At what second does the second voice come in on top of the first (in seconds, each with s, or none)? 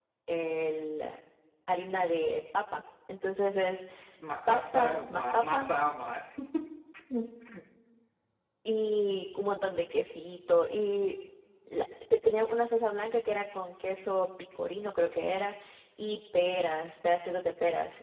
4.5 s